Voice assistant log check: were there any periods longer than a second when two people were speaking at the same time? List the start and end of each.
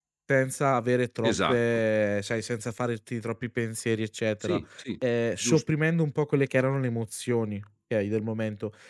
none

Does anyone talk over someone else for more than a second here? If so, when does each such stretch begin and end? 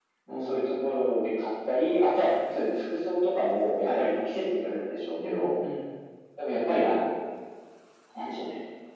none

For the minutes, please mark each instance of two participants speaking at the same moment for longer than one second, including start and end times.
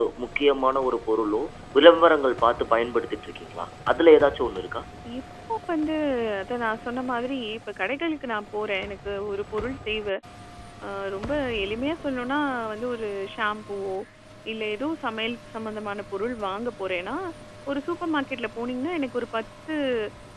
none

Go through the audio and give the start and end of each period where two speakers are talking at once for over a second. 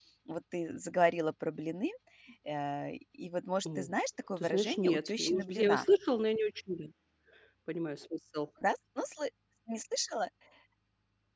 4.4-5.9

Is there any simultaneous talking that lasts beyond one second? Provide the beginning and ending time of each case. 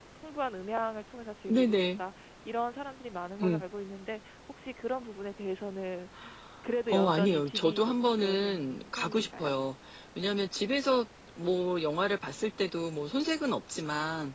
6.9-9.5

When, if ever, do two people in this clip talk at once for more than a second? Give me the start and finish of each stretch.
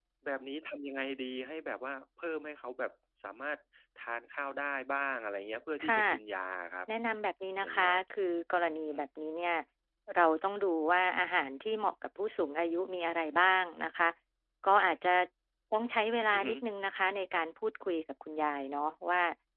none

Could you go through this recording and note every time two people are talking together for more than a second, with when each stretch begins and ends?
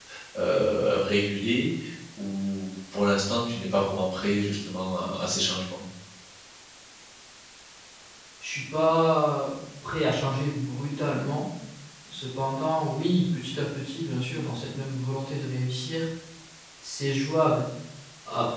none

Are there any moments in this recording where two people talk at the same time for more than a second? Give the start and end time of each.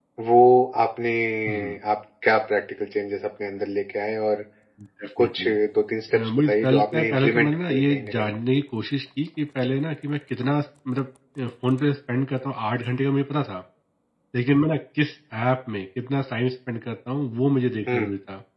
6.1-8.3

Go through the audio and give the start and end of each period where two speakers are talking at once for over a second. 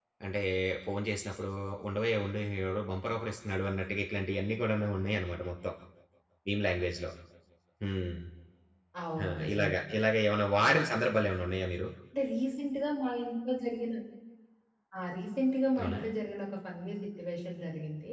none

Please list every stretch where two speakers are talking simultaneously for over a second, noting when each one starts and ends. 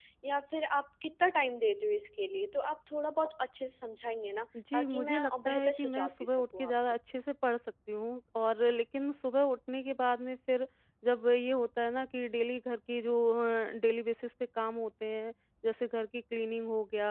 4.7-6.7

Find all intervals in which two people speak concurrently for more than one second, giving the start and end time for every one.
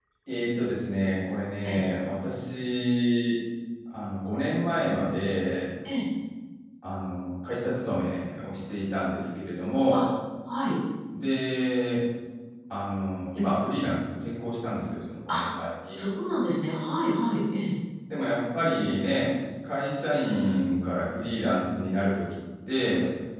none

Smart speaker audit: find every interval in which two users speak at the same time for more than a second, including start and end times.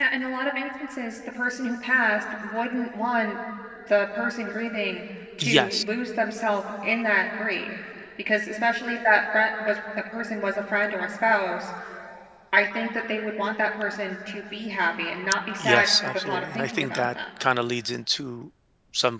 15.6-17.0

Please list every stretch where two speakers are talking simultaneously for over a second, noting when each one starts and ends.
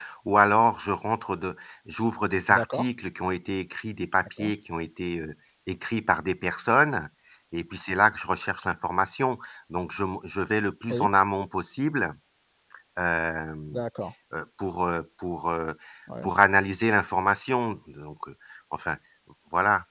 none

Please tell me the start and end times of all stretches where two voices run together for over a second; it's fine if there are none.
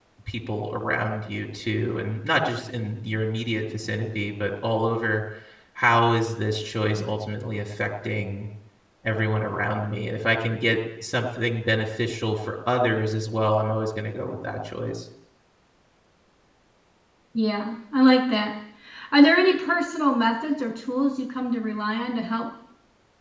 none

